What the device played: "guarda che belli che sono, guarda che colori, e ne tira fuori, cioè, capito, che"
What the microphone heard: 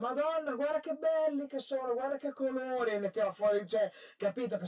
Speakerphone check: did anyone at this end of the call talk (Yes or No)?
No